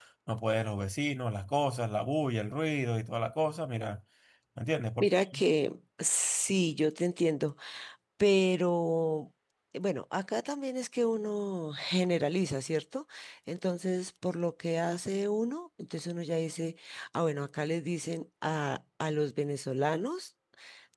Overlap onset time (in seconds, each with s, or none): none